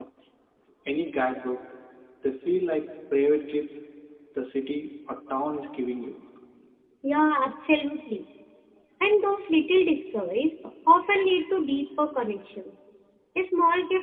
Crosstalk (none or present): none